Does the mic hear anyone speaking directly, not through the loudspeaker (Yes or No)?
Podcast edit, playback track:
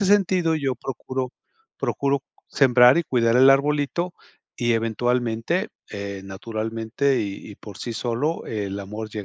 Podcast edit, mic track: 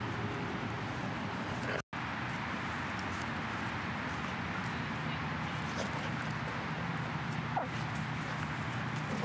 No